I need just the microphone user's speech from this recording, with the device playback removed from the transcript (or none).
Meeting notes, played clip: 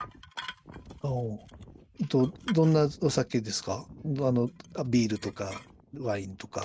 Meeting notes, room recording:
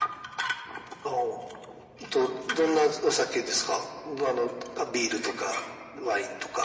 none